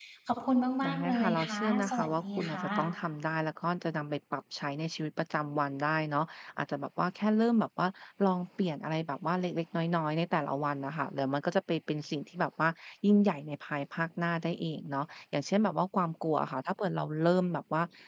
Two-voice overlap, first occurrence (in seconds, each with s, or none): 0.8 s